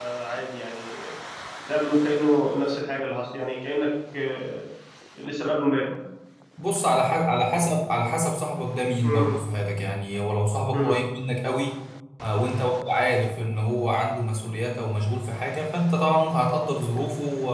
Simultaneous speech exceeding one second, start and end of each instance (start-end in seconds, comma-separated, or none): none